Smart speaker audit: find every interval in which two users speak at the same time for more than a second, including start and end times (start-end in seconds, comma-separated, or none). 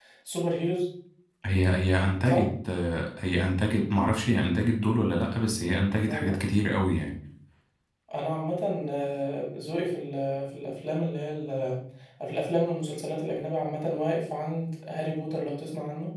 none